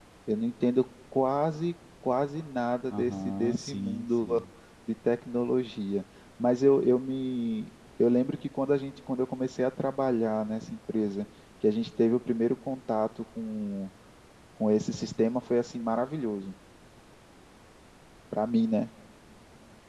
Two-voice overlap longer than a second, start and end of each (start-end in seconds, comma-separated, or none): 2.9-4.2